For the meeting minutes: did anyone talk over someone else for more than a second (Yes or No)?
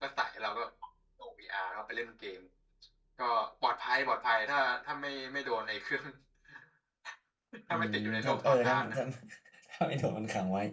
Yes